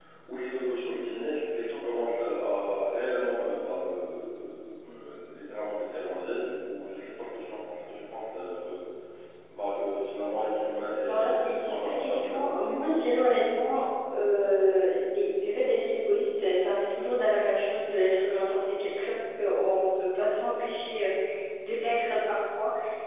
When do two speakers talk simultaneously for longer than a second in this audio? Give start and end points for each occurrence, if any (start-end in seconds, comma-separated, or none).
11.0-12.7